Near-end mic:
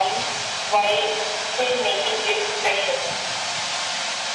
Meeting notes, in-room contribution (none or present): none